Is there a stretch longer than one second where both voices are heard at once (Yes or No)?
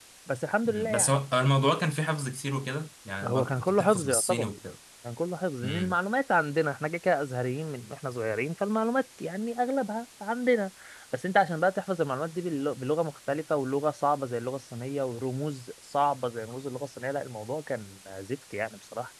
Yes